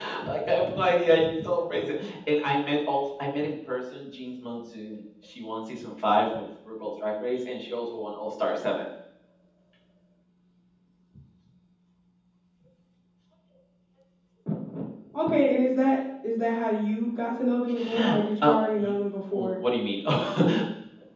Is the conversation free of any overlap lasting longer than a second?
Yes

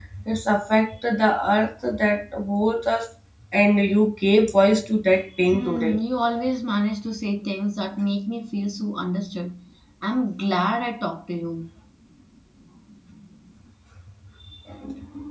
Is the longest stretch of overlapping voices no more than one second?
Yes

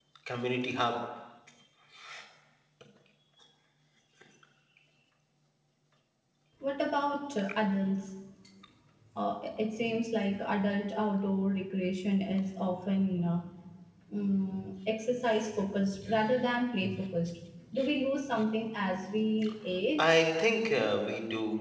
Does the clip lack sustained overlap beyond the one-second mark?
Yes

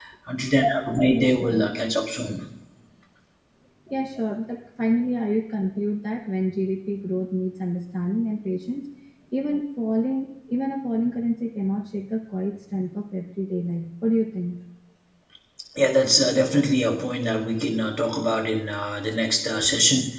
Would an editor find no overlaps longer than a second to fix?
Yes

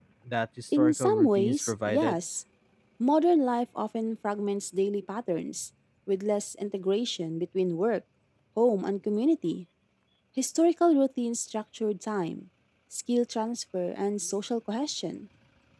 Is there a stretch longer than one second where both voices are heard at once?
Yes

